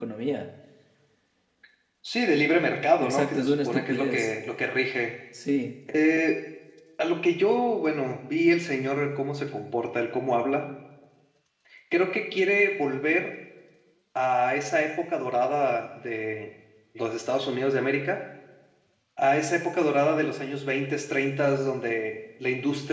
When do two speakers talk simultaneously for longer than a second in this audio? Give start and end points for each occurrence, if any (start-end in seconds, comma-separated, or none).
3.0-4.3